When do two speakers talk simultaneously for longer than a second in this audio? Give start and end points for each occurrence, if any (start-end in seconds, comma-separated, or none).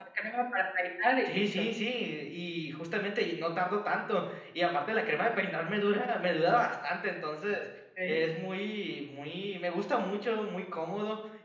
none